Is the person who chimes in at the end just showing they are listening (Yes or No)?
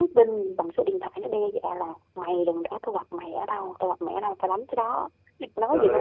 No